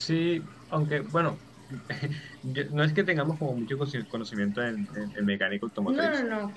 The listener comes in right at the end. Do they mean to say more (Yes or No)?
Yes